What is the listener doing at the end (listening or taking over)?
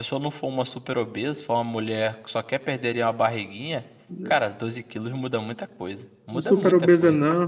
taking over